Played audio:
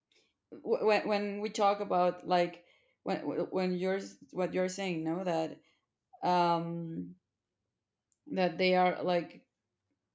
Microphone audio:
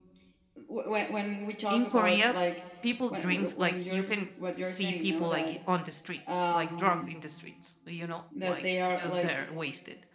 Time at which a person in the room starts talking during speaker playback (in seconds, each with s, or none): 1.7 s